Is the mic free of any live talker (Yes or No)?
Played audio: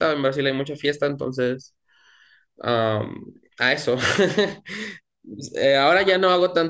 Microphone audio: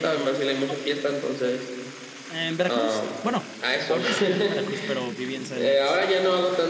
No